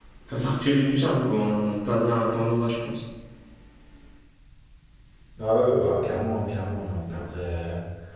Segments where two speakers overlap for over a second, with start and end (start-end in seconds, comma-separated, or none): none